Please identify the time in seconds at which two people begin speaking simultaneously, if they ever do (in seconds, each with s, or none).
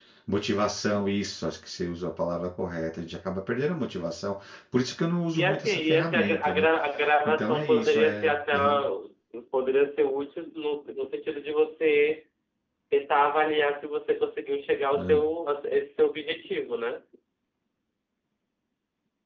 5.3 s